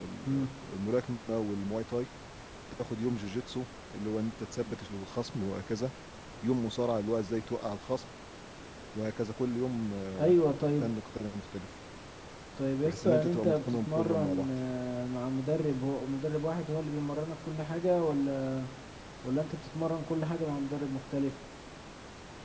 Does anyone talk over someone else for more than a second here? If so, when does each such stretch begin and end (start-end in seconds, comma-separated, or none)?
12.8-14.5